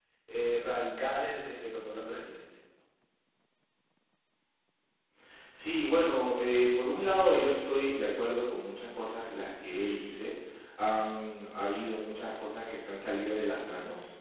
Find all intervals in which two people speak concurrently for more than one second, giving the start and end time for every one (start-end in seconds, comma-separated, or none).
none